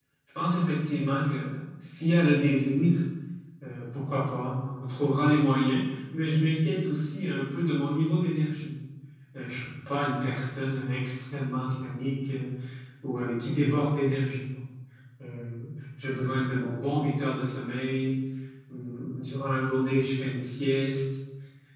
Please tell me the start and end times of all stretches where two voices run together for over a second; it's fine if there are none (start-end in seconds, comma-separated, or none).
none